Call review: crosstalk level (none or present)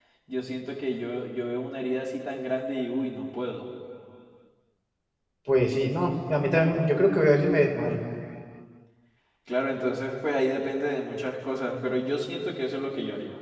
none